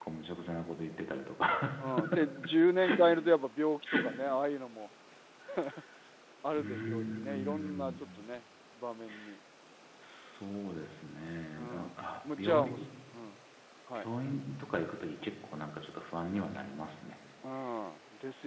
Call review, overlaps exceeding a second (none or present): present